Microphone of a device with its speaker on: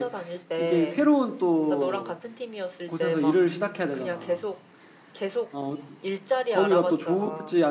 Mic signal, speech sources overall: both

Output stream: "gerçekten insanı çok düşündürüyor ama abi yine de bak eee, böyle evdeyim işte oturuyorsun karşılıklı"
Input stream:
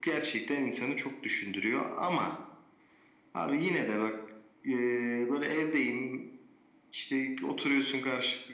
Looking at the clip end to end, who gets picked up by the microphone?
echo only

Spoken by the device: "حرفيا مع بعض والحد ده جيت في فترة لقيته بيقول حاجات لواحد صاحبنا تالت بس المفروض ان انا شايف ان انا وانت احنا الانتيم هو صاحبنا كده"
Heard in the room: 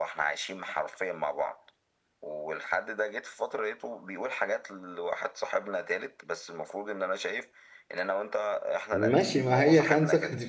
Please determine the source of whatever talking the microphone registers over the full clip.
both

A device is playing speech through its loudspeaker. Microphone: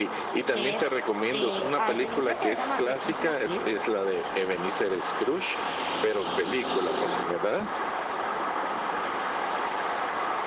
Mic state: both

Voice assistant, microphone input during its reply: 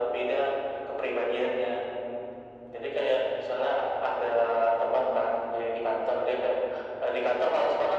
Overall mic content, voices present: echo only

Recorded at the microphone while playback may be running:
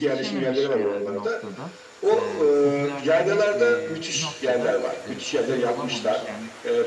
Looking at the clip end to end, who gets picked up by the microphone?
both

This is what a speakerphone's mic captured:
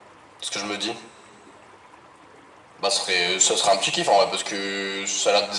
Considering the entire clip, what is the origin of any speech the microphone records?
echo only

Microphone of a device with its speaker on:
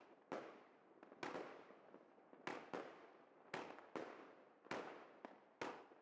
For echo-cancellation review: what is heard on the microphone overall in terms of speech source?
neither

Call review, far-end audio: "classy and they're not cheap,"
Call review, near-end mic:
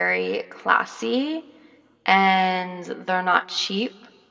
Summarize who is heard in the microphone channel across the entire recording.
echo only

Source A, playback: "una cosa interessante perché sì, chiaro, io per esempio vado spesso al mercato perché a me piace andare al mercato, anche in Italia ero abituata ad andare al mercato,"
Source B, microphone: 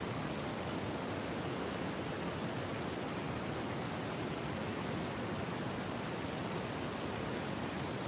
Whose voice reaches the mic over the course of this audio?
neither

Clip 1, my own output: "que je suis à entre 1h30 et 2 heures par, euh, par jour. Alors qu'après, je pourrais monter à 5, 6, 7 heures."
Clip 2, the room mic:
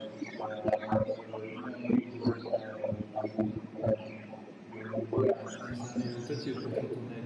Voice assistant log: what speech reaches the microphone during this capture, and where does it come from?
both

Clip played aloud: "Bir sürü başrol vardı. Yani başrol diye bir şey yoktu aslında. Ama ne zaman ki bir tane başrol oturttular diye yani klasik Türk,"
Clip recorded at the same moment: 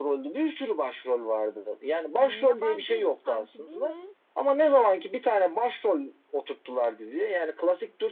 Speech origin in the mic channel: both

